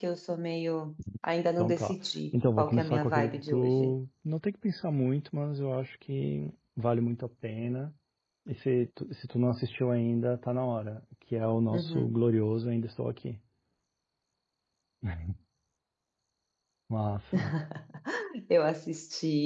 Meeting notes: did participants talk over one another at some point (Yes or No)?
Yes